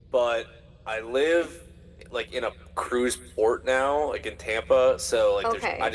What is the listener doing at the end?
listening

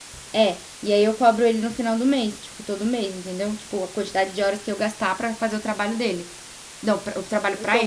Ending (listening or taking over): taking over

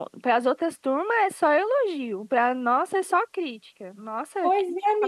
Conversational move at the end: taking over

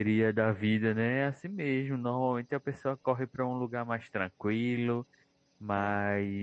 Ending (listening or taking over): listening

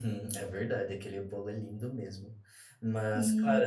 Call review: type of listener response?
listening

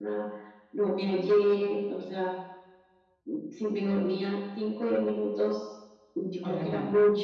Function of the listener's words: listening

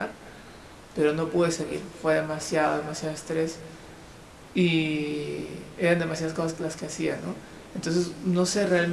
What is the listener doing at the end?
listening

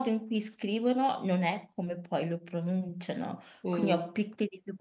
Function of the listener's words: listening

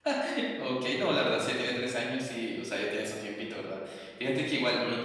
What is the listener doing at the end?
listening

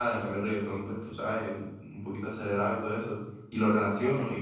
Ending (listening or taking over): listening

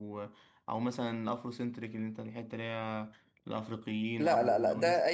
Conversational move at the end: taking over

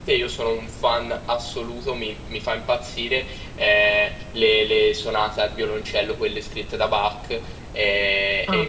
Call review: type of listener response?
listening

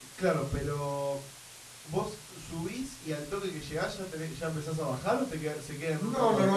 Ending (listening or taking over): taking over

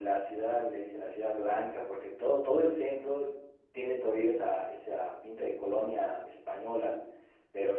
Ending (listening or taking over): listening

